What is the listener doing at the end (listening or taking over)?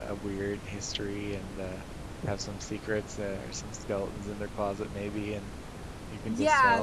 taking over